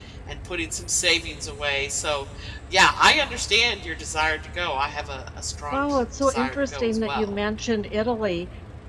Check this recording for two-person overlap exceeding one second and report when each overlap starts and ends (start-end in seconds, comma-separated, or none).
5.7-7.3